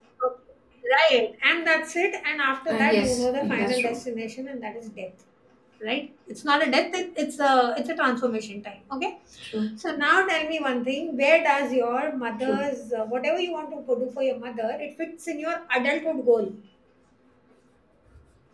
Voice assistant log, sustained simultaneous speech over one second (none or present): present